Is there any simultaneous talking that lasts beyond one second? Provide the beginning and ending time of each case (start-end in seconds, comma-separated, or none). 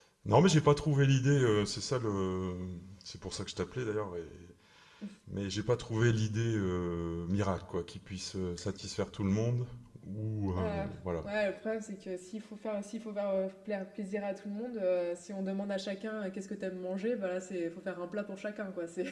none